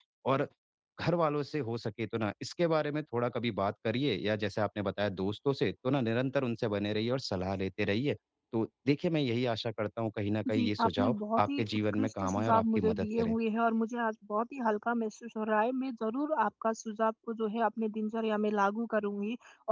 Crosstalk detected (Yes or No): Yes